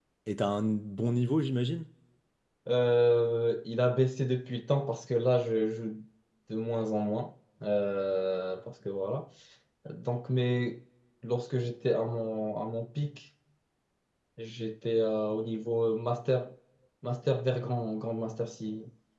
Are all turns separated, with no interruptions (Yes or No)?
Yes